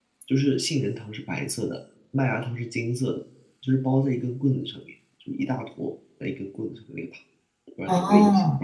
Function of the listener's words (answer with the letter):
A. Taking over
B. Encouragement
A